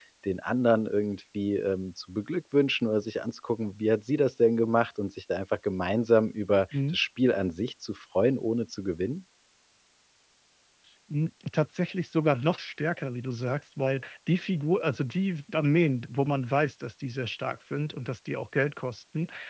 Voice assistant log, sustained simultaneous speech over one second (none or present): none